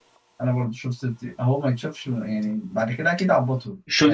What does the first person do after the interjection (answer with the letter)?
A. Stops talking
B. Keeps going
A